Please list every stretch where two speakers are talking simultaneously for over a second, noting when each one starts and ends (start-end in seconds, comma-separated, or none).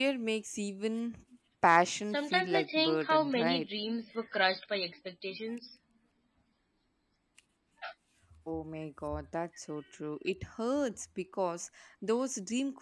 2.1-3.7